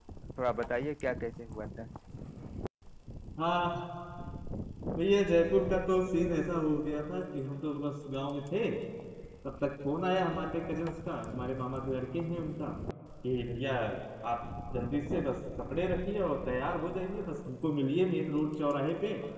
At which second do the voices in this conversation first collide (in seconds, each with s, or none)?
none